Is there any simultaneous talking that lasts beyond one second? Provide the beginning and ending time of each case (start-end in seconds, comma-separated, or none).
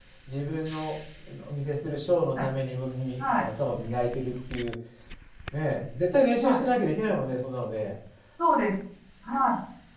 none